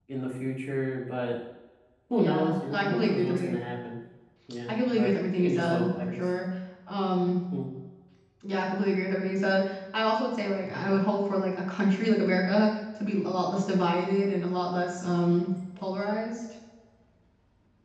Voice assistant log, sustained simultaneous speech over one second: present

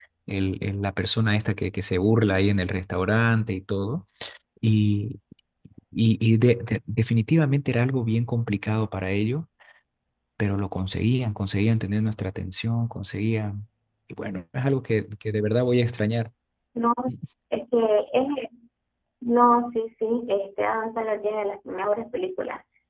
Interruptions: none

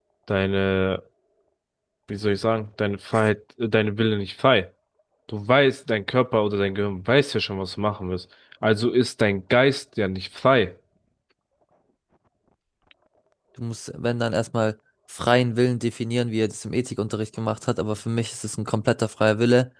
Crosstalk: none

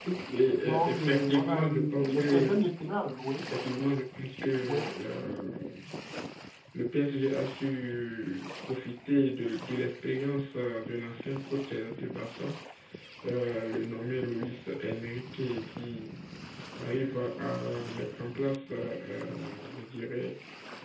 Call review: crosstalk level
present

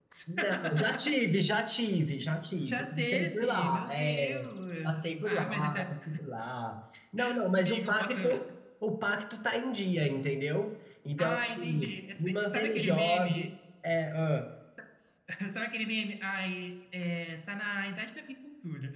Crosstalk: present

